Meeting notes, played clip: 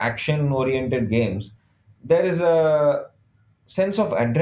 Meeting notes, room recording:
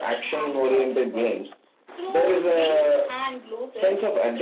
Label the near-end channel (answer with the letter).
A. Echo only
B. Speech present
B